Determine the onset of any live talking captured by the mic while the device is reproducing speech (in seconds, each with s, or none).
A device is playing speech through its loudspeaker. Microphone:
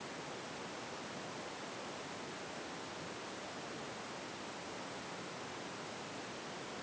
none